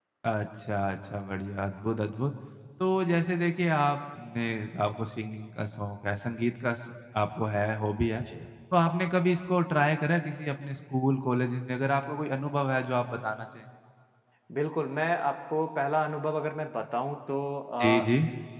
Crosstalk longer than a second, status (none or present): none